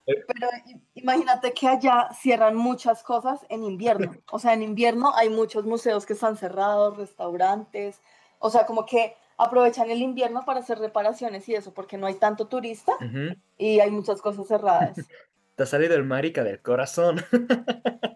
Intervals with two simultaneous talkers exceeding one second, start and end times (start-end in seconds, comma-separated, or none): none